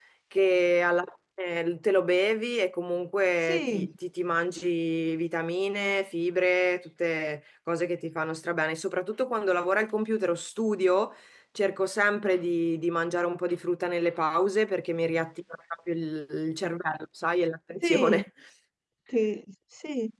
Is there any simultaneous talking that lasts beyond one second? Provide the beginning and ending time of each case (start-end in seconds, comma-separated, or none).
none